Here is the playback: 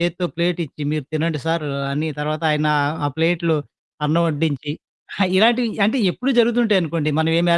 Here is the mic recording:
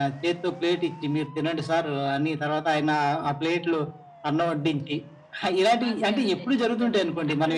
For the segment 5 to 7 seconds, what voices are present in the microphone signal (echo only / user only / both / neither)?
both